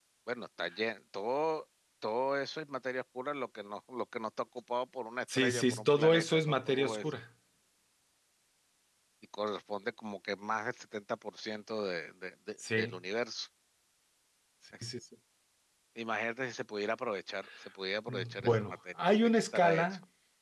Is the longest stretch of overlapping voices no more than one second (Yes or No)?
No